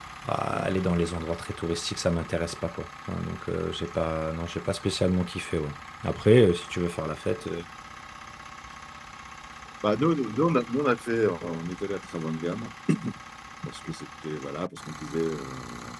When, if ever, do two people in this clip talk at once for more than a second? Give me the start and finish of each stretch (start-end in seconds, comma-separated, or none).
none